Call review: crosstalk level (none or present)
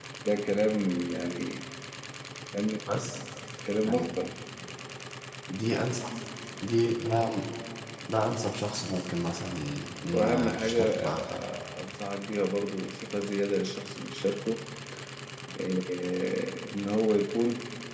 present